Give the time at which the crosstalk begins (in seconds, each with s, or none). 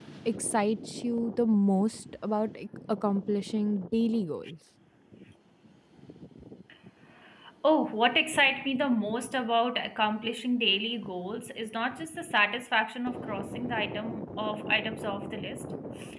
none